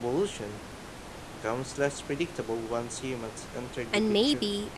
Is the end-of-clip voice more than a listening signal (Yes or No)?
Yes